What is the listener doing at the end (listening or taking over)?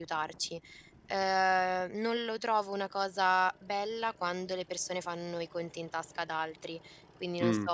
listening